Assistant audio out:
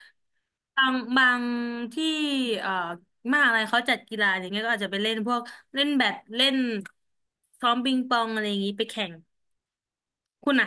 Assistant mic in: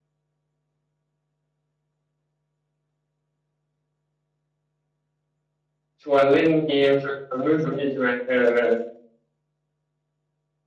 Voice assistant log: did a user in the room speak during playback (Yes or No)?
Yes